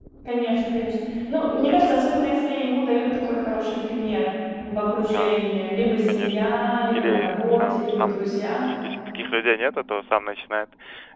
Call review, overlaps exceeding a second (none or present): present